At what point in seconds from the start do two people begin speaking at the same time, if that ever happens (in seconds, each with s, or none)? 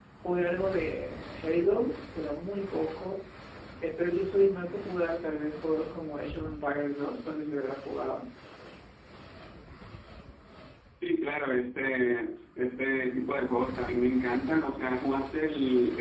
none